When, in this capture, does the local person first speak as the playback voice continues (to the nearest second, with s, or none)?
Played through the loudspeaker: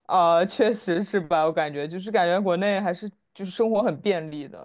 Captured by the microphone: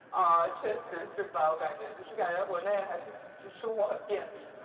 none